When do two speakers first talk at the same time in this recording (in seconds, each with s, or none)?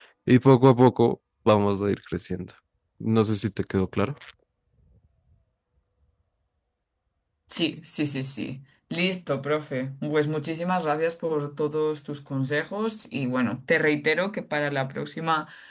none